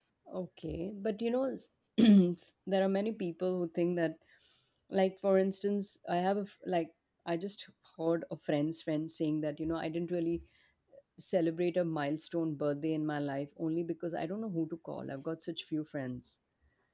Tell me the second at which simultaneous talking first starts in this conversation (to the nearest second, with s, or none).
none